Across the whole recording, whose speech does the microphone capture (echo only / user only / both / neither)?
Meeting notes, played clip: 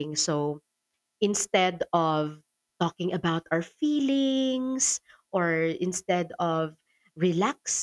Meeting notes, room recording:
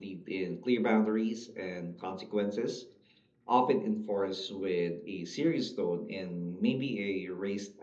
user only